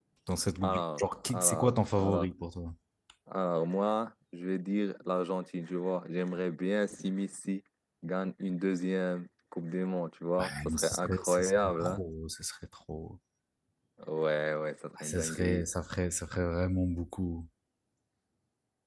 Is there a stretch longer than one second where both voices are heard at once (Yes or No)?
Yes